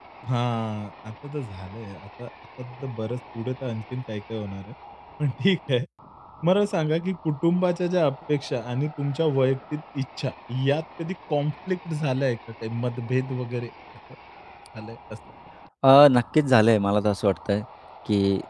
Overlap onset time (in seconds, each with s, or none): none